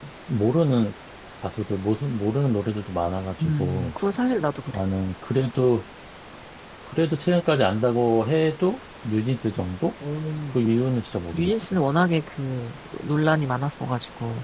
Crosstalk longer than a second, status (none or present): none